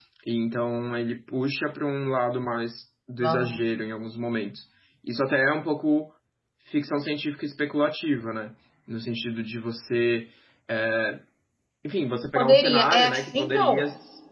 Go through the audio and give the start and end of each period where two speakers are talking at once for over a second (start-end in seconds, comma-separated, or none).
12.3-13.8